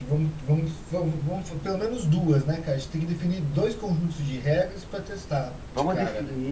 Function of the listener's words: taking over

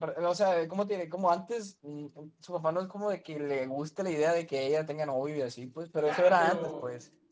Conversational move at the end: taking over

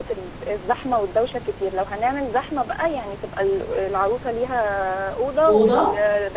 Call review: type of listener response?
listening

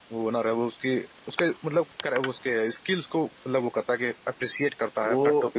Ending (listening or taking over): taking over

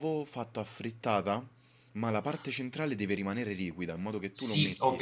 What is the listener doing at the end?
taking over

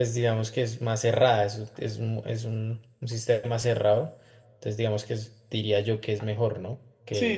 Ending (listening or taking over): taking over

